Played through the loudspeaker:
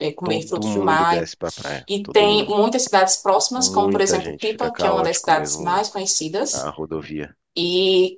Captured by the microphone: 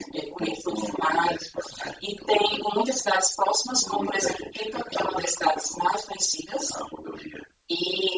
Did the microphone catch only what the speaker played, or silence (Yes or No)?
Yes